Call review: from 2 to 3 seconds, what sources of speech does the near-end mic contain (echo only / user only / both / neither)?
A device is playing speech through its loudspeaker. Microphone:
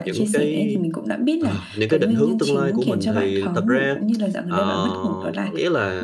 both